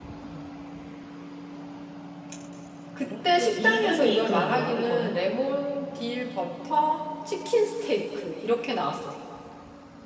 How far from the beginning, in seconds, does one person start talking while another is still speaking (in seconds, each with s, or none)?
3.1 s